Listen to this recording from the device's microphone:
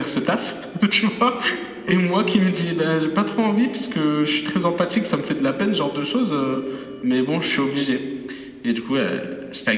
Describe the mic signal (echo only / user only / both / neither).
echo only